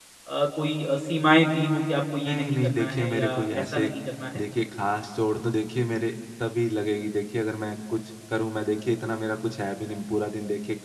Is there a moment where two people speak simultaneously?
Yes, from 2.3 s

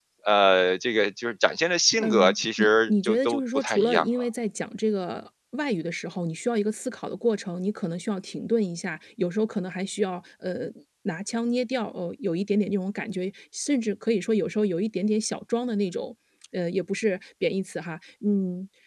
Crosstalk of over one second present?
Yes, from 2.0 s

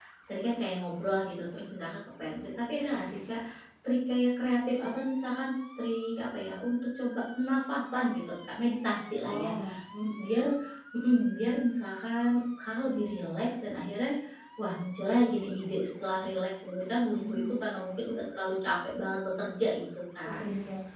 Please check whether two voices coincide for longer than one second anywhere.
No

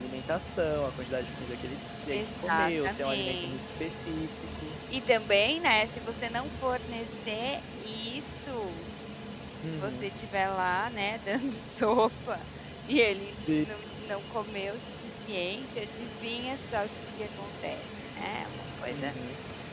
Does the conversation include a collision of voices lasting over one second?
Yes, from 2.1 s

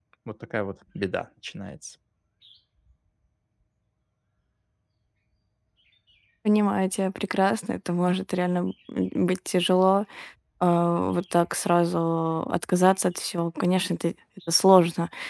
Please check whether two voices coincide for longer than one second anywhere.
No

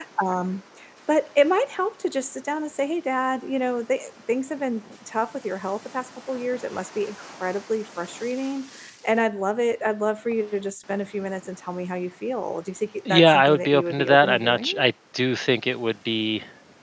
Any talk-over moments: Yes, from 13.0 s

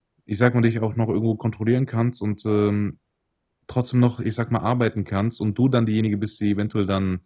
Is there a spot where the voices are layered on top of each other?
No

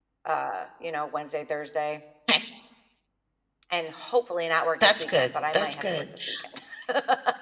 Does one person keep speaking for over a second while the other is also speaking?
Yes, from 4.8 s

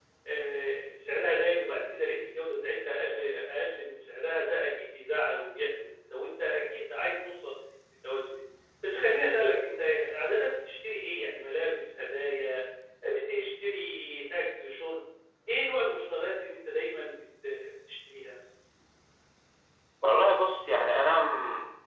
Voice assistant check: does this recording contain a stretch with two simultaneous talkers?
No

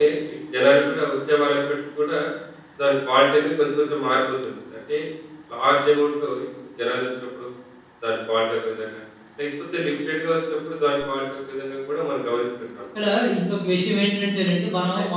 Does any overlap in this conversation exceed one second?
No

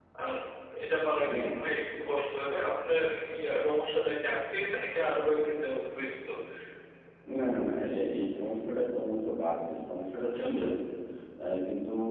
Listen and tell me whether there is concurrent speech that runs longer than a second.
No

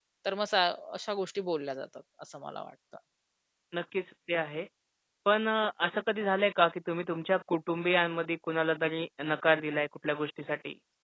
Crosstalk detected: No

